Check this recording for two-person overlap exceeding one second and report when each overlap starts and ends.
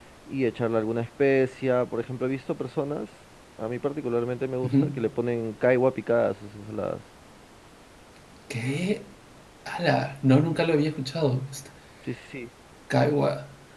none

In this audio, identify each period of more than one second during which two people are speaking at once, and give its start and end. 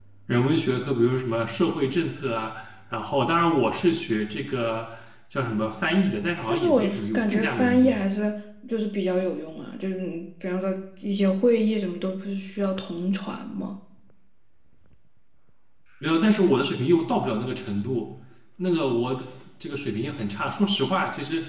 6.5-8.0

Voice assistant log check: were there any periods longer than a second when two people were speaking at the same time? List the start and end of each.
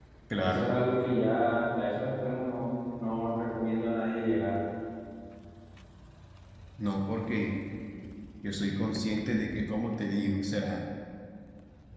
none

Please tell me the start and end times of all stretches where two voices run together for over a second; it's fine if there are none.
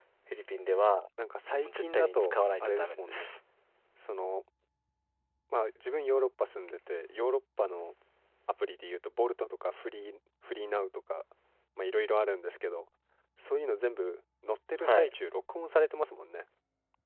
1.6-3.3

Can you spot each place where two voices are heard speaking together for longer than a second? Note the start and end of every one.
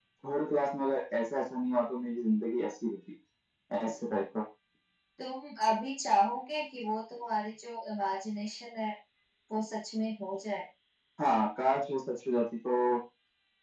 none

